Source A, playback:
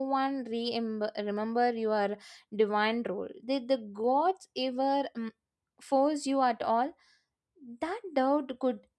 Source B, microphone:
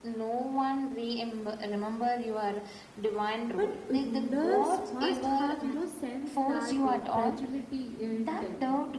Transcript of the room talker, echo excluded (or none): But rulers must have, you know, sense that uh, fragility in them.